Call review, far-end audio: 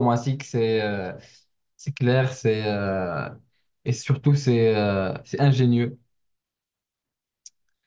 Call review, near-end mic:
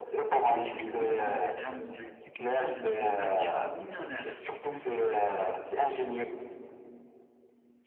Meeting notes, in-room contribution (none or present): present